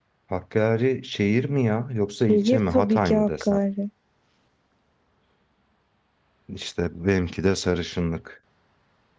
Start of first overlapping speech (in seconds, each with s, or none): 2.3 s